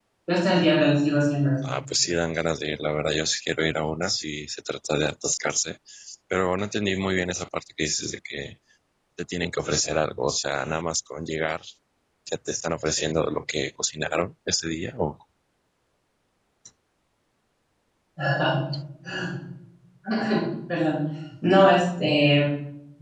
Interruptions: none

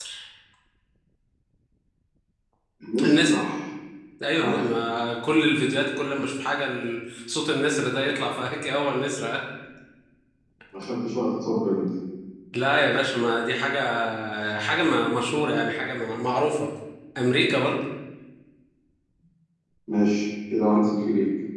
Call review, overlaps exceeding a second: none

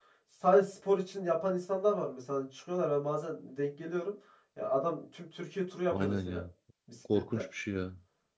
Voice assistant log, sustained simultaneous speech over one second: none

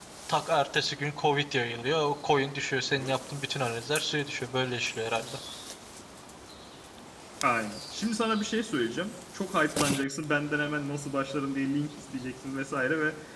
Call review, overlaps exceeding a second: none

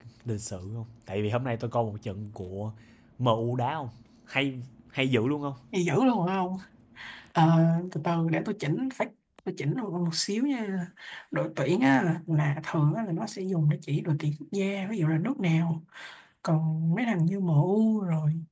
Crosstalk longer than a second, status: none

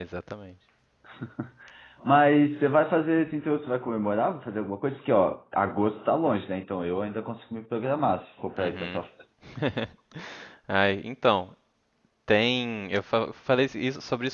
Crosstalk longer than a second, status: none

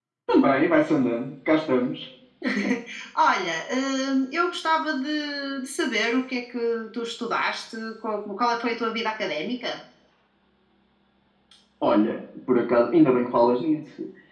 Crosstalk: none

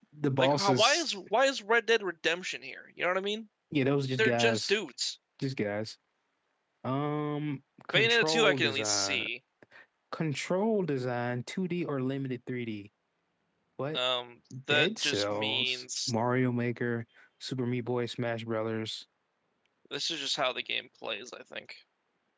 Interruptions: present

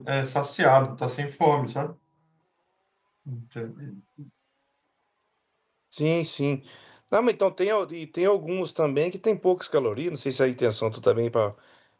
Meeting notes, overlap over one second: none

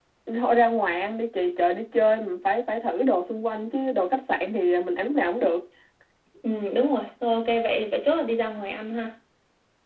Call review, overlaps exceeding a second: none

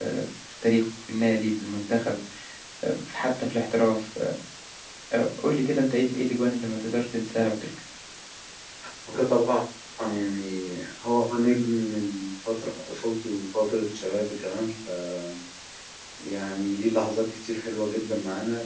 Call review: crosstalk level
none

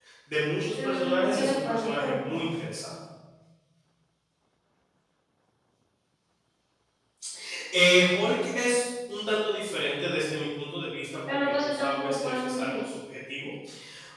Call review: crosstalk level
present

